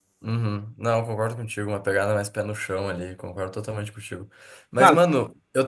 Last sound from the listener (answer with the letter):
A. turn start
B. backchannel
B